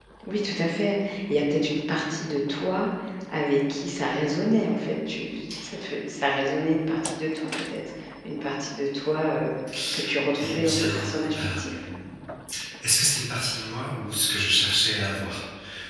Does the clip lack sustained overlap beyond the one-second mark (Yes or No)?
No